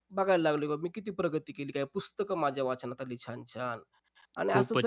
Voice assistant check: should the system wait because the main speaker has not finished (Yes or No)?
No